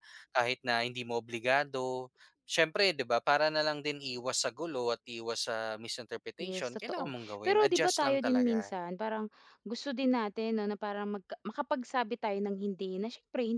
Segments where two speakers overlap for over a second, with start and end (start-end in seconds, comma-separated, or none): 6.4-8.7